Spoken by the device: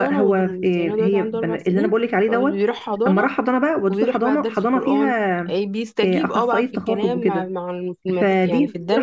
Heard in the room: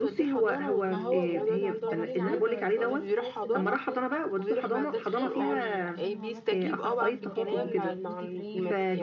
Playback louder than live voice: Yes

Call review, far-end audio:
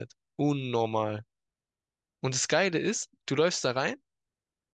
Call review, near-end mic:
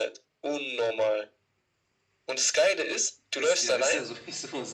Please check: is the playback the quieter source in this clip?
No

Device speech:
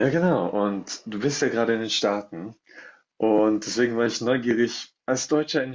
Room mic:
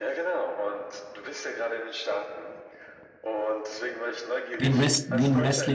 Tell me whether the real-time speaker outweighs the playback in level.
Yes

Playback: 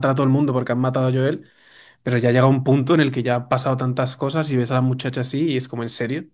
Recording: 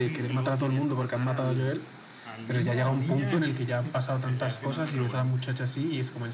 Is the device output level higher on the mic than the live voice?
Yes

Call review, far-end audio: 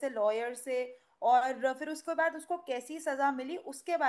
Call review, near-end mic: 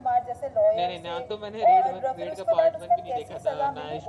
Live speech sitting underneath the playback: Yes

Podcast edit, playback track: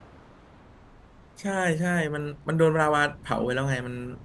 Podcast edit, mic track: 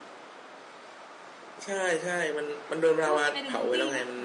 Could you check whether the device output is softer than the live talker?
No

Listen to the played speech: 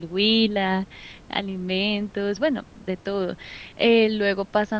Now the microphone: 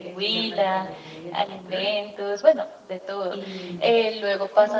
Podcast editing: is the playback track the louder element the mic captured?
Yes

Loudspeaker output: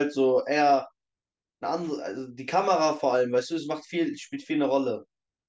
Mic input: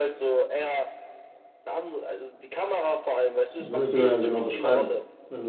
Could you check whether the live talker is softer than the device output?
No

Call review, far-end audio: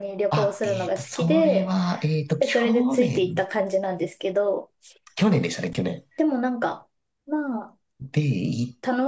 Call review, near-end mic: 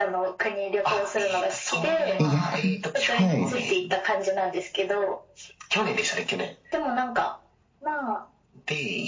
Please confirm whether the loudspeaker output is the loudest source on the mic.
No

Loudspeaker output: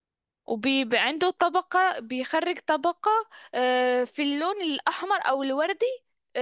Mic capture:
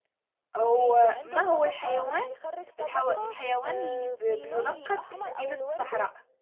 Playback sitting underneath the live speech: Yes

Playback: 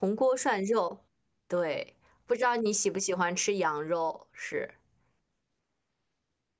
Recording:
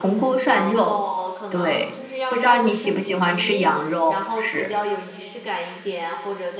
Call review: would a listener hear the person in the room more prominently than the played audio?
No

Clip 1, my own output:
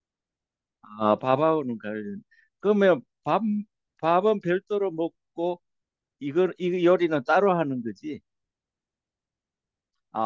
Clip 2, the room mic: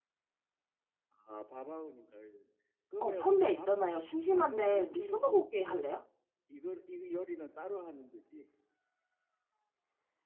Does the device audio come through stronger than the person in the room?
No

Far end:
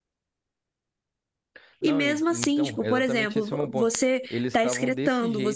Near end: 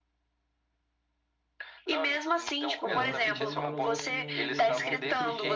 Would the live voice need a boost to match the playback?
Yes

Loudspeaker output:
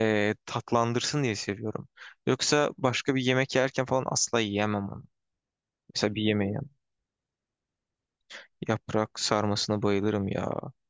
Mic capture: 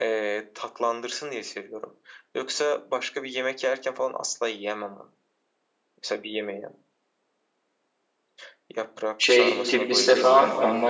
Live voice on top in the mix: Yes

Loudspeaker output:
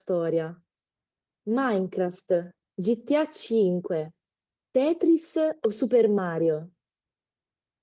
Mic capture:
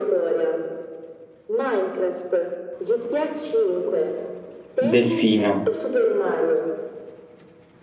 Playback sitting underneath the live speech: Yes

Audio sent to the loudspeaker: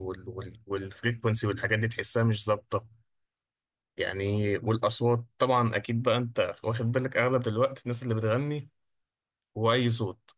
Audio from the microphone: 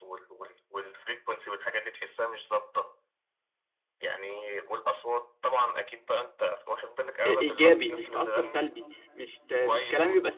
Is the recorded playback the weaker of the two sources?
Yes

